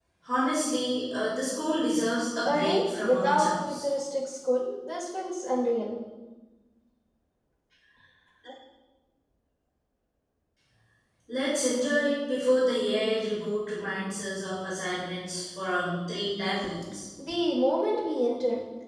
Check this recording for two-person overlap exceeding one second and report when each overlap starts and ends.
2.4-3.9

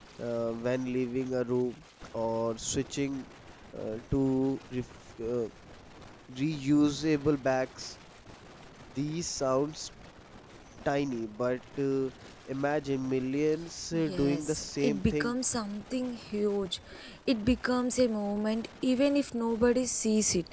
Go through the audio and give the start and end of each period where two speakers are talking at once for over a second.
13.9-15.3

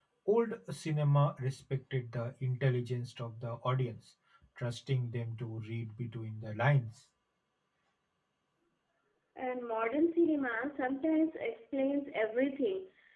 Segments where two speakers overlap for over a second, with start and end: none

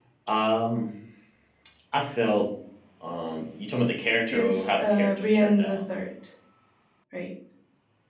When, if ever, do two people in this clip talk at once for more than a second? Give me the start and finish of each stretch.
4.3-5.8

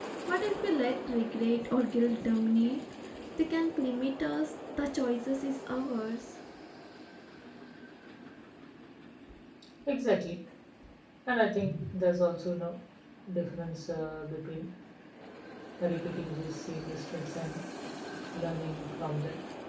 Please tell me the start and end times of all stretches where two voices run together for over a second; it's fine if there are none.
none

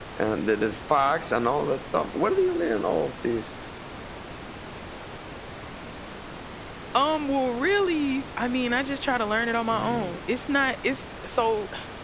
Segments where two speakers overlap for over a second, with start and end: none

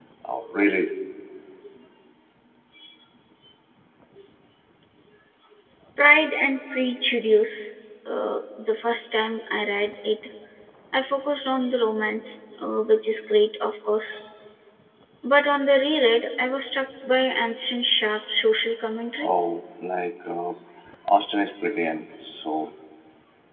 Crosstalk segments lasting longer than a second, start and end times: none

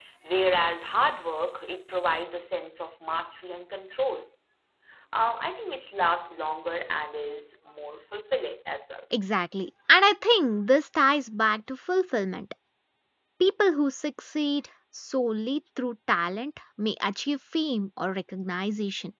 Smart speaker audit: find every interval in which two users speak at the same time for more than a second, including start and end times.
none

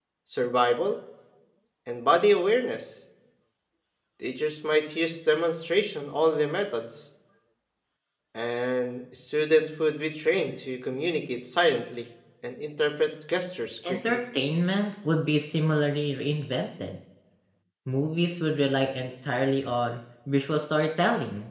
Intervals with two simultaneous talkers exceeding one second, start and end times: none

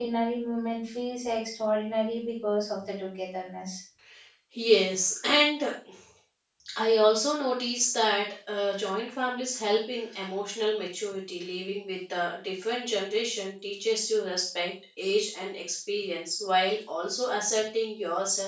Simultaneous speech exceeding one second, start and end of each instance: none

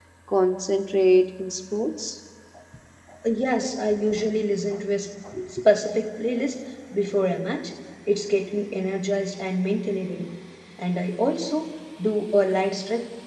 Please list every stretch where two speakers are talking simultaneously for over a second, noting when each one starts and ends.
none

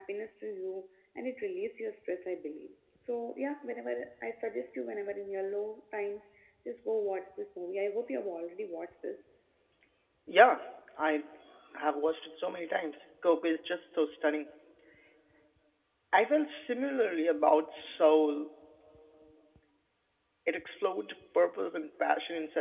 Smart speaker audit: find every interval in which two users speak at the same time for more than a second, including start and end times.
none

